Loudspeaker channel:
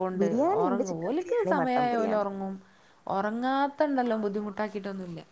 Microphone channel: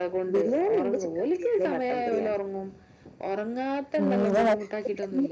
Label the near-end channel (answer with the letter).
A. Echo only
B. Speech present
B